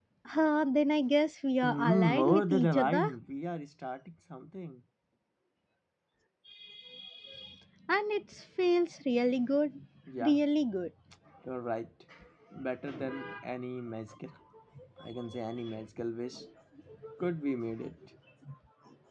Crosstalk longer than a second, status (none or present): present